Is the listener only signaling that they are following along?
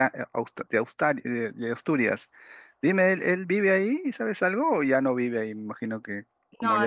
No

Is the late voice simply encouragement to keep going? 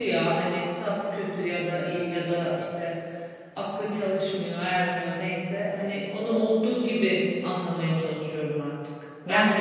Yes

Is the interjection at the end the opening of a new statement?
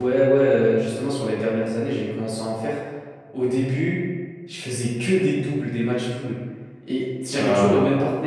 No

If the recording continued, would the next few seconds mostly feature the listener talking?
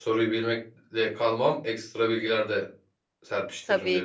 Yes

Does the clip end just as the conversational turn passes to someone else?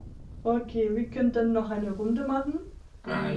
Yes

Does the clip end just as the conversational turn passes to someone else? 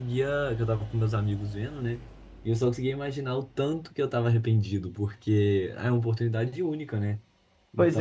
Yes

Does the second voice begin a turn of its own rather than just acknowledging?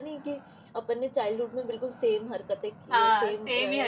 Yes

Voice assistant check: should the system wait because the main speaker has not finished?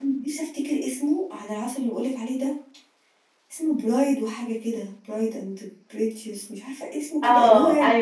No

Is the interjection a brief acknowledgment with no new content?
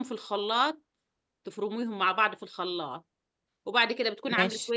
Yes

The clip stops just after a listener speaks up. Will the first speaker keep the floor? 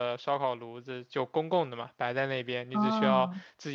Yes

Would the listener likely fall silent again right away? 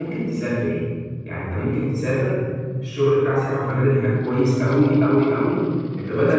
Yes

